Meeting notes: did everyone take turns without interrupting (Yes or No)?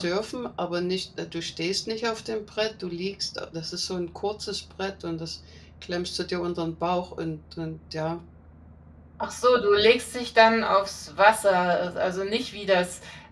Yes